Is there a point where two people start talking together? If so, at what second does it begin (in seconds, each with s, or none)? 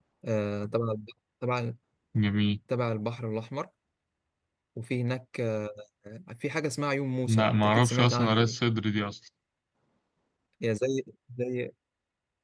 7.3 s